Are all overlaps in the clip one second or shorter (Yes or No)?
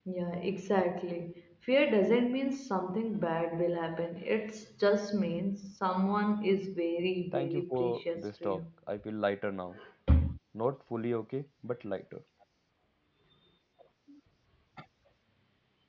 No